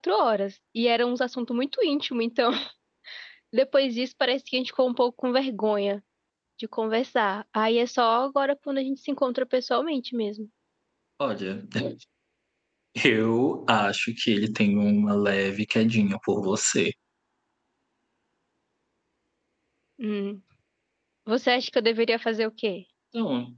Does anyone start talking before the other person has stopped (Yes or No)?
No